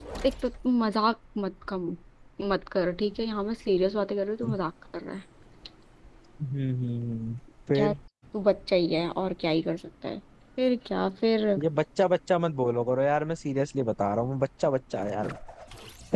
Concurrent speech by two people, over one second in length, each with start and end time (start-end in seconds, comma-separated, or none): none